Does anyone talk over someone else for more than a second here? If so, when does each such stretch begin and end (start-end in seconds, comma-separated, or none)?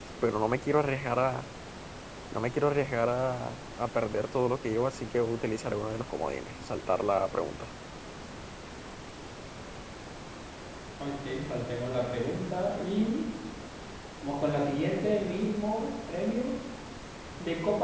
none